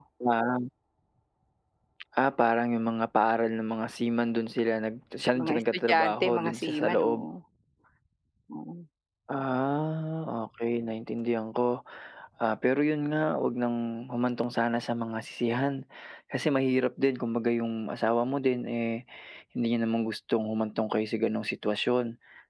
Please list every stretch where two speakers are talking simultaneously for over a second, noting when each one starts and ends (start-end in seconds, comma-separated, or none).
5.4-7.3